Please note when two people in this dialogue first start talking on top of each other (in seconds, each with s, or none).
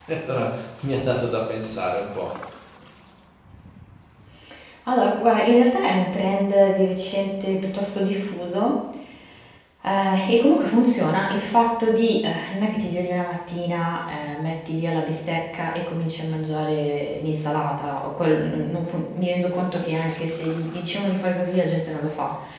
none